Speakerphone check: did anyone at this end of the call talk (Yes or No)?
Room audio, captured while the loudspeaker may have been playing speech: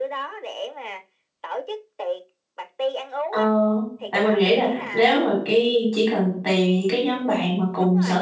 Yes